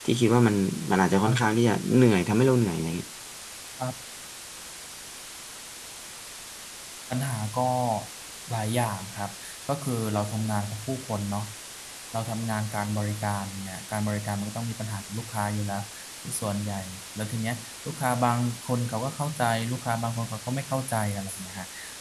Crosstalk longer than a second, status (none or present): none